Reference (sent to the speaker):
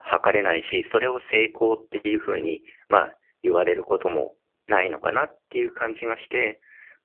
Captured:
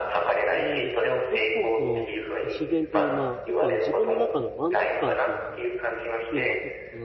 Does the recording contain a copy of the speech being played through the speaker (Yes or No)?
Yes